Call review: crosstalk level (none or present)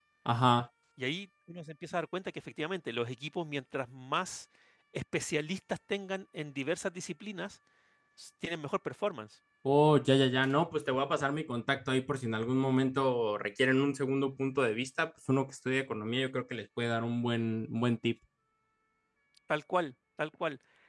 none